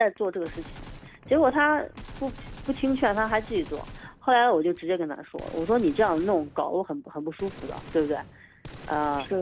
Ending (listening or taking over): listening